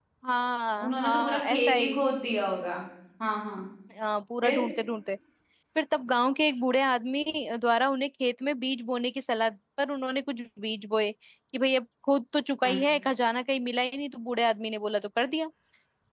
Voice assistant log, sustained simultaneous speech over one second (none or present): present